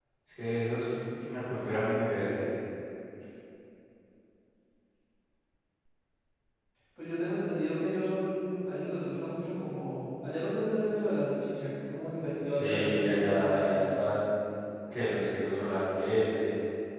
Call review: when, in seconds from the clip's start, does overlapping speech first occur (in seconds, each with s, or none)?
12.5 s